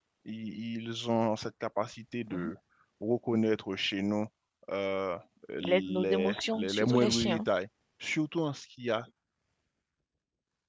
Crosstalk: present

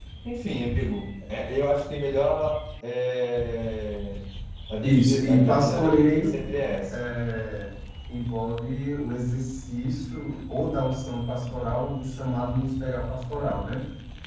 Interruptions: present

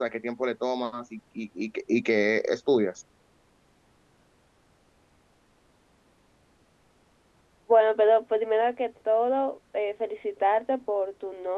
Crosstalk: none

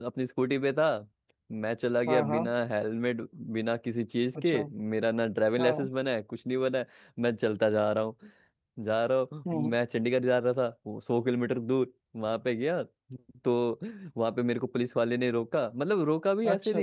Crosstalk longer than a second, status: none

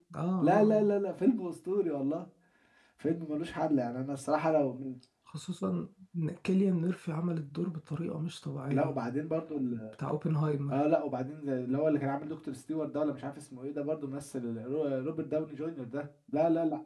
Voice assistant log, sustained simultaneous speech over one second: none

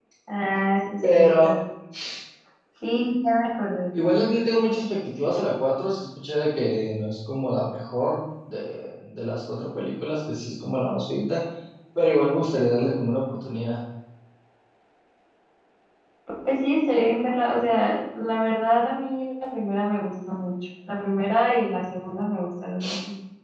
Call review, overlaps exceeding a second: none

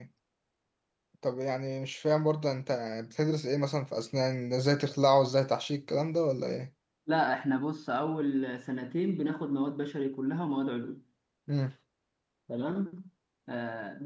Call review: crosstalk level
none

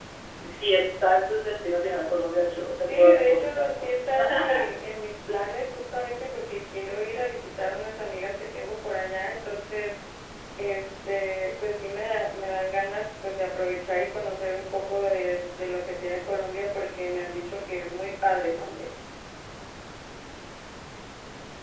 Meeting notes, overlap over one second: present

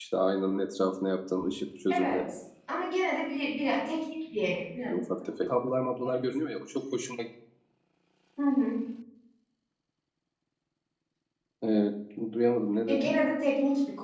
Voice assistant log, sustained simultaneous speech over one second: none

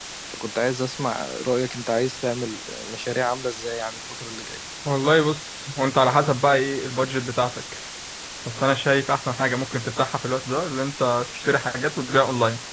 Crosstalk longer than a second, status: none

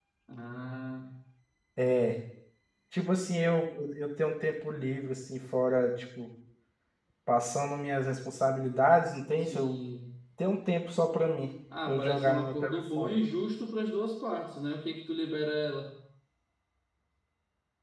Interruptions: present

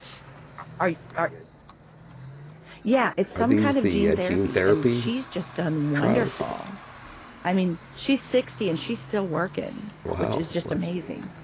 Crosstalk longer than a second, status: present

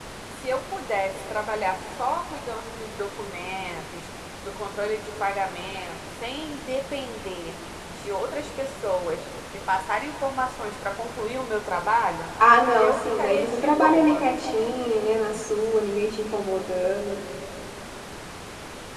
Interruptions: present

